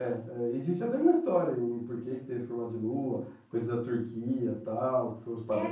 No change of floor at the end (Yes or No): No